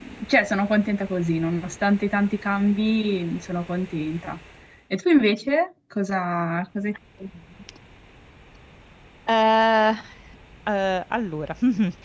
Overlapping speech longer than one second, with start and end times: none

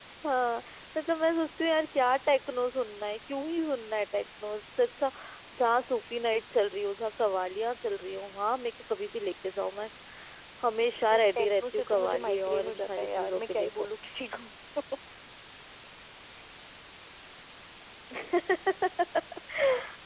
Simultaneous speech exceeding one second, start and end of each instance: 11.1-13.7

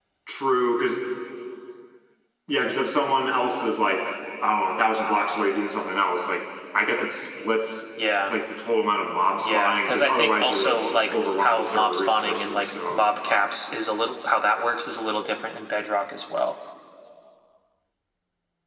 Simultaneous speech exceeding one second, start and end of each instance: 9.4-13.1

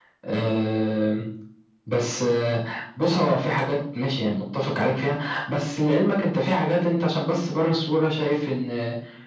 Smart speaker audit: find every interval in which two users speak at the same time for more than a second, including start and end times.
none

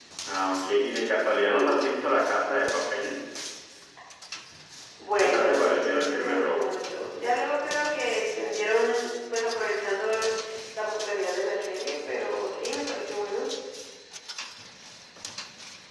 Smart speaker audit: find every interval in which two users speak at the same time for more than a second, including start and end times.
5.2-6.7

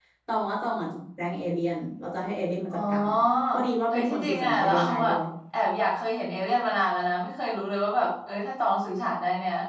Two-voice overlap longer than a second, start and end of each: 3.9-5.1

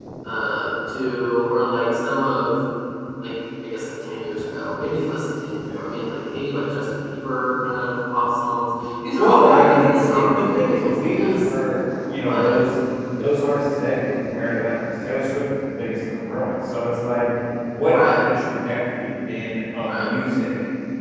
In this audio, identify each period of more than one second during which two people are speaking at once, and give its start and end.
9.2-11.5

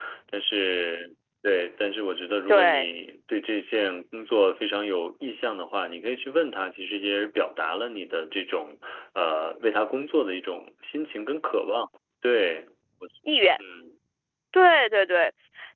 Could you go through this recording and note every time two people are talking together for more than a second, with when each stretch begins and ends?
none

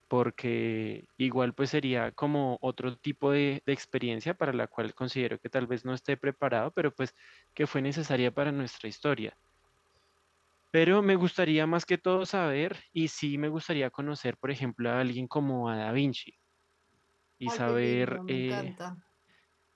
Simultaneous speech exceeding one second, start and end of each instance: 17.5-18.7

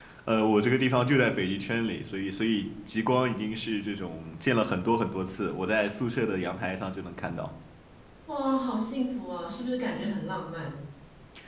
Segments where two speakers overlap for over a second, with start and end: none

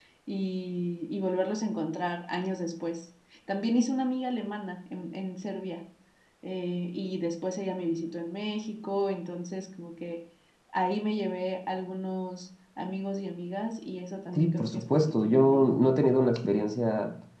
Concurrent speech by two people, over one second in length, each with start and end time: 14.3-15.6

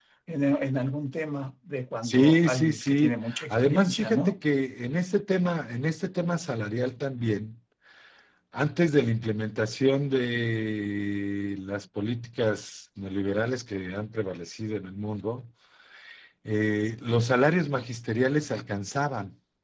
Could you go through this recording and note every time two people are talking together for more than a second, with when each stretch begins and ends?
2.0-4.4

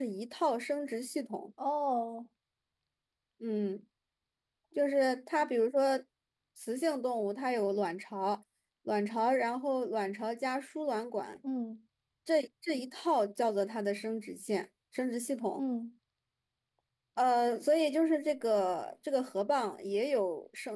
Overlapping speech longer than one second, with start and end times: none

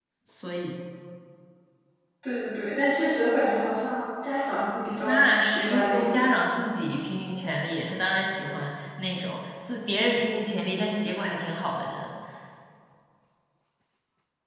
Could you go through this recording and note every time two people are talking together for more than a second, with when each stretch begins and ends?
5.0-6.3

